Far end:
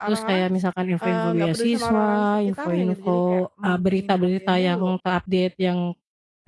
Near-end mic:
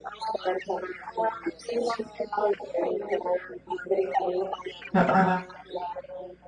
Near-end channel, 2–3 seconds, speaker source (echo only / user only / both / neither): echo only